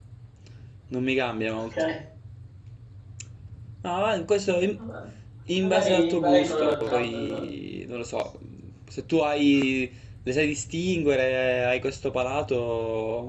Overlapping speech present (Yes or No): Yes